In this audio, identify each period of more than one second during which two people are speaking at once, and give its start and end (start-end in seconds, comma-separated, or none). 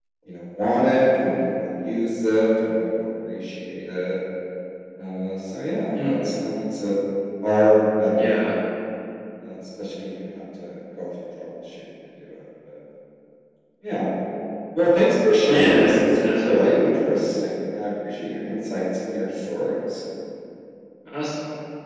15.5-16.7